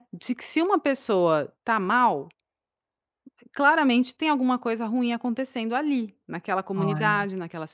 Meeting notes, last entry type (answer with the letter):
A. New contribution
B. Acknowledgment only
B